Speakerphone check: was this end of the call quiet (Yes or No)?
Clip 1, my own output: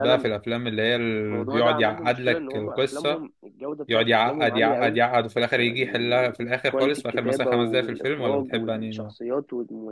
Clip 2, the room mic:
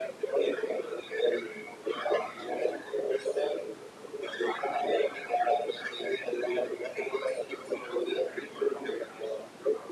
Yes